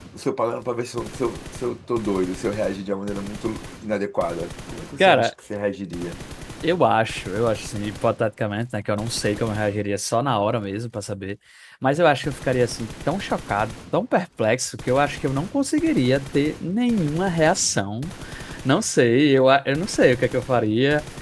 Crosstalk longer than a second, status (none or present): none